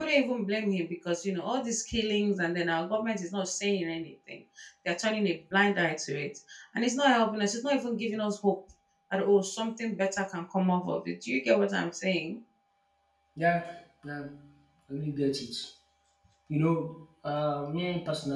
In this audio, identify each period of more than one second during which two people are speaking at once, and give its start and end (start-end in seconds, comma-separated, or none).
none